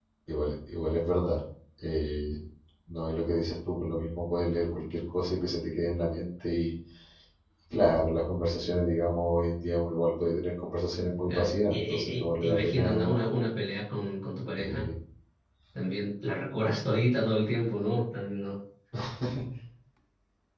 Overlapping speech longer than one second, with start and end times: 11.3-13.3

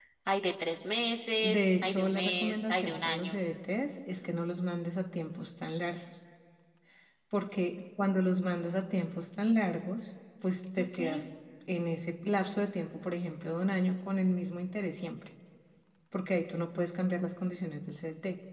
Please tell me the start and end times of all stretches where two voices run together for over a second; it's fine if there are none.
1.4-3.4

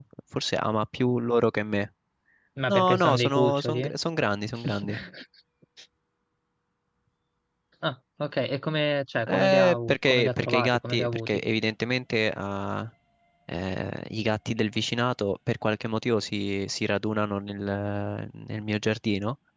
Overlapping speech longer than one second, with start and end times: 2.7-3.9, 9.3-11.4

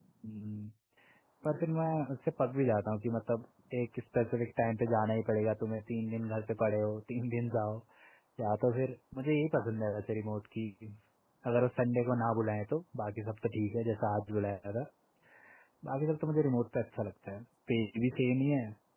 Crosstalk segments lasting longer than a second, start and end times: none

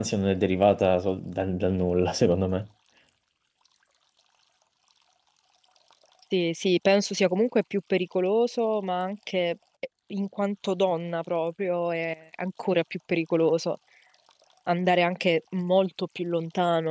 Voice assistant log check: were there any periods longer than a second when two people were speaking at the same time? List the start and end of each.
none

